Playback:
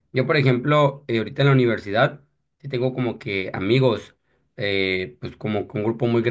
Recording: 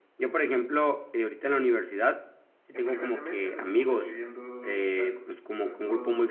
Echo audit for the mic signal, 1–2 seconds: echo only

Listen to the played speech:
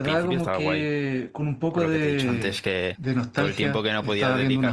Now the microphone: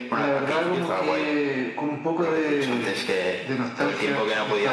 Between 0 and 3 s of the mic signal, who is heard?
echo only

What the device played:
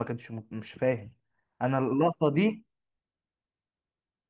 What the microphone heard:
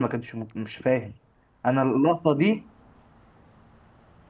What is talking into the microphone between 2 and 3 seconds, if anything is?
echo only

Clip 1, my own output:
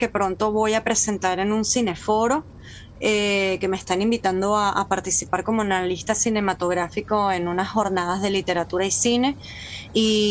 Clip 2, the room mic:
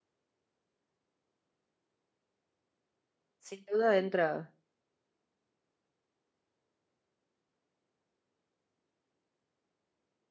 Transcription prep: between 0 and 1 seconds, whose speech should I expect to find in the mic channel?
neither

